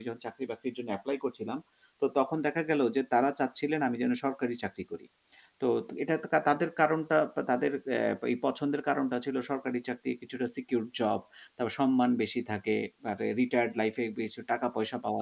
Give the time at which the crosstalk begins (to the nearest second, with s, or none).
none